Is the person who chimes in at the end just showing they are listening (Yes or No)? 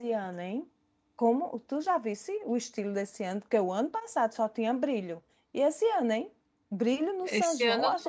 No